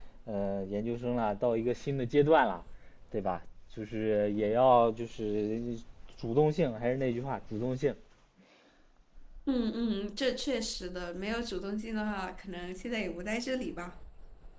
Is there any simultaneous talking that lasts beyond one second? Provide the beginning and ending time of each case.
none

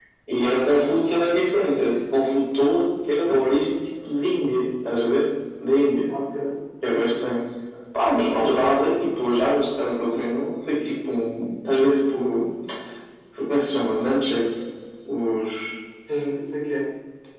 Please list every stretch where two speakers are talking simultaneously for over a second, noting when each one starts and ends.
none

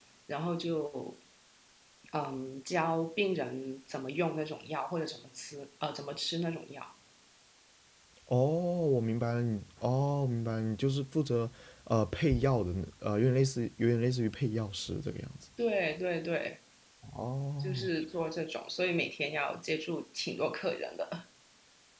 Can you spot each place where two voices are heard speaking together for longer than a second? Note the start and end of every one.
none

